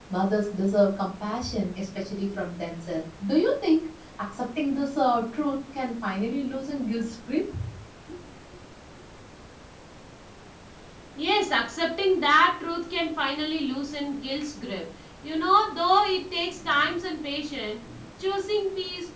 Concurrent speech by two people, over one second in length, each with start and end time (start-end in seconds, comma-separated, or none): none